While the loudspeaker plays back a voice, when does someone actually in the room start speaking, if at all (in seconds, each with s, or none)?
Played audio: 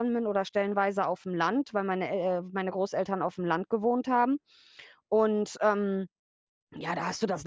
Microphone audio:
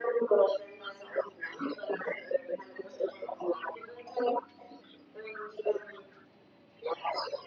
none